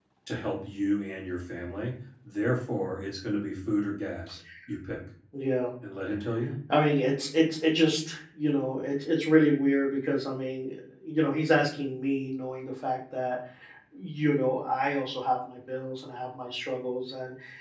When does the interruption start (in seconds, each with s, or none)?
none